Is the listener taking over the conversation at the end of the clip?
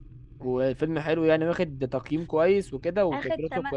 Yes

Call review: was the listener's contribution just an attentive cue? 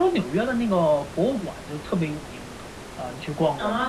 No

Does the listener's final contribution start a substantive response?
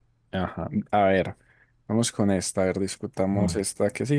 No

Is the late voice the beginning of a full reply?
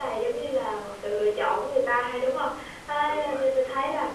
No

